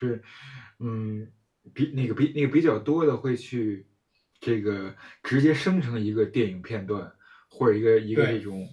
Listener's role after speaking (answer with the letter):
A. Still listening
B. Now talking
A